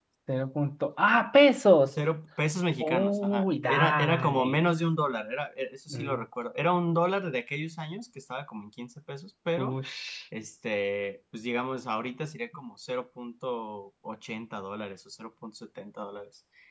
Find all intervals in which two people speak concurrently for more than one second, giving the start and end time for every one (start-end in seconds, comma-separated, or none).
2.8-4.6